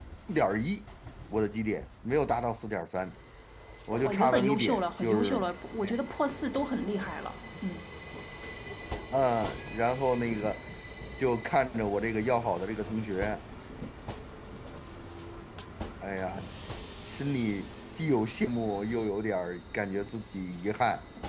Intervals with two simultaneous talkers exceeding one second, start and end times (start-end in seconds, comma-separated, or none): 4.0-5.4